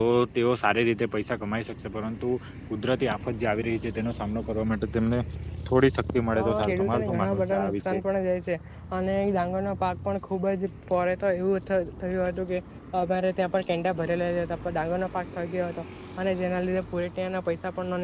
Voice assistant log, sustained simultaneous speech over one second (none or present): present